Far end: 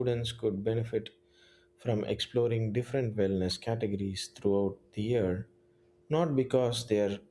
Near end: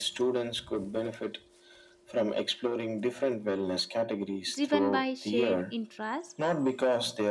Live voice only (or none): driven by shared interest